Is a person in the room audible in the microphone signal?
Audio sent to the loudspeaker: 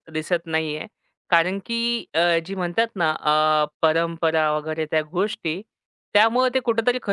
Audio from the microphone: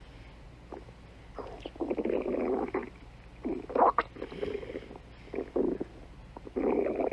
No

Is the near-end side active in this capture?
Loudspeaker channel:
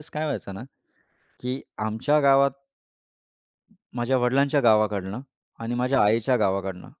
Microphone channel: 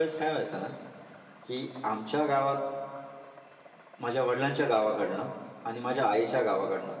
No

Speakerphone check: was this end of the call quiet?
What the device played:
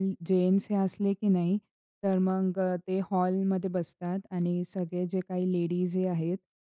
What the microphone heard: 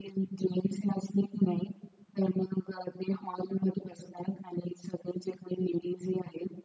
Yes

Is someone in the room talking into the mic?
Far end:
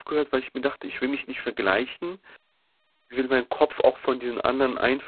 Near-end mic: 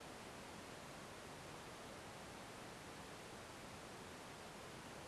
No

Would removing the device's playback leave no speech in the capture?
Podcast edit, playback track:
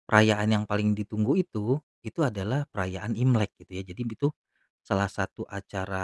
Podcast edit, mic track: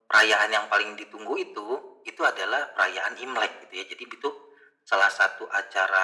Yes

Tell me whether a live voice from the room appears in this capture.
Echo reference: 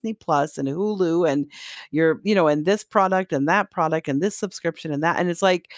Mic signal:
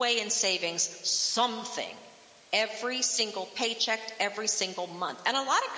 Yes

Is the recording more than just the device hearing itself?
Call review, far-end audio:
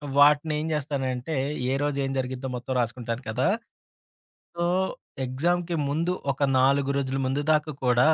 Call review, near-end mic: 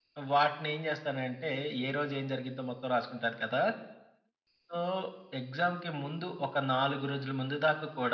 No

